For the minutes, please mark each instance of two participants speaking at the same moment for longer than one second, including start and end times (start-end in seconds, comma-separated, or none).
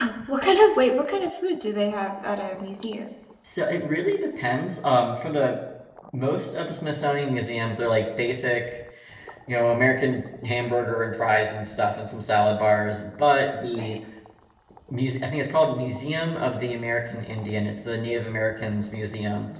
none